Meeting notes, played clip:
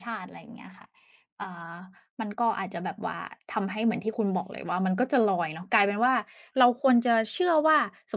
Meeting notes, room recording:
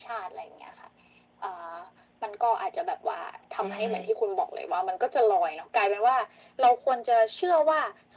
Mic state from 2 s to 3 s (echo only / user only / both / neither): echo only